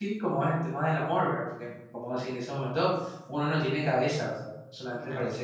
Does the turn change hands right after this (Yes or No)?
No